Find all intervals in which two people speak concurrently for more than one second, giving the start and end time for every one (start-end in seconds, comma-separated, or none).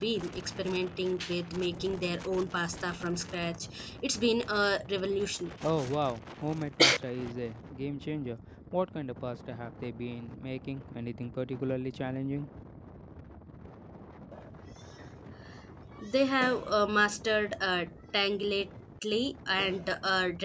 none